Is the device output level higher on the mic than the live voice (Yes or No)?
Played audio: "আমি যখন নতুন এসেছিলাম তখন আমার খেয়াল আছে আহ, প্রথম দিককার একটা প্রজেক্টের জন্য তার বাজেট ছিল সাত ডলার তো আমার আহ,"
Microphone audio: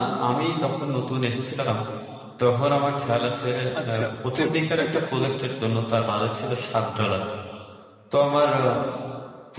Yes